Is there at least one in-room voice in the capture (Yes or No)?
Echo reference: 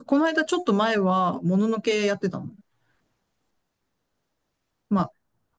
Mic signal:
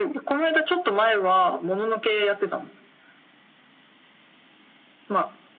No